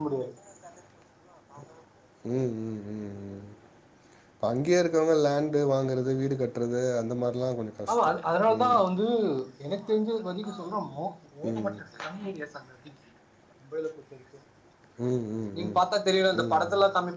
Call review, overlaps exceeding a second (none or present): none